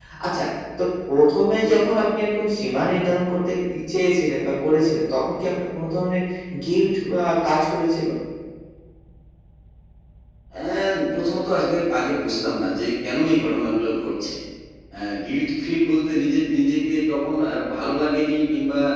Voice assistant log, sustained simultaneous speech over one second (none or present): none